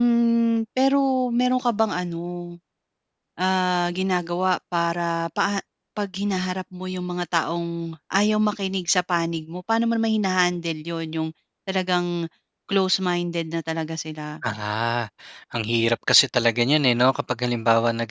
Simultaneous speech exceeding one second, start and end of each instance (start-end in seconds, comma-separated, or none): none